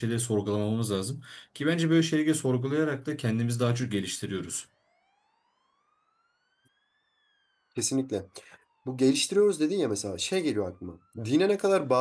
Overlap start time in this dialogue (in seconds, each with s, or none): none